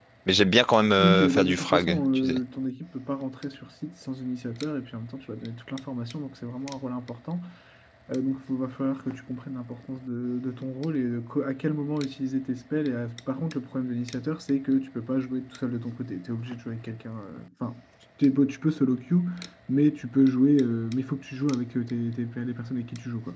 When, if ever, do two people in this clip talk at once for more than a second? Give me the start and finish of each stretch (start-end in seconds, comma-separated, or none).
1.0-2.4